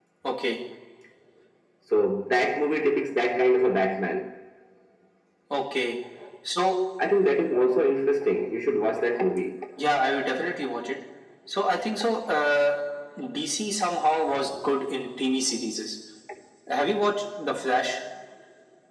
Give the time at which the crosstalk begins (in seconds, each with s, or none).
none